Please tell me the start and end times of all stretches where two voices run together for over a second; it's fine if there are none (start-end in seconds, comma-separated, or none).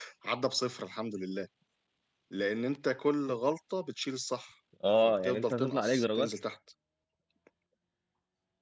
5.0-6.3